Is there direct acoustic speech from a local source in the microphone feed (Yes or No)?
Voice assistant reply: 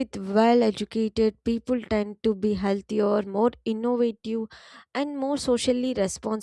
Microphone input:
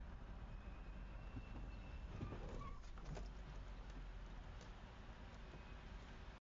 No